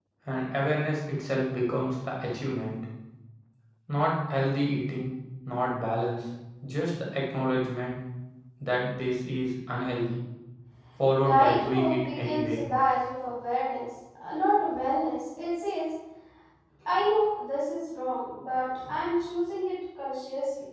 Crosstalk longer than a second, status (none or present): present